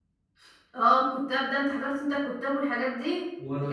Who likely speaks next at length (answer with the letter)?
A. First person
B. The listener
A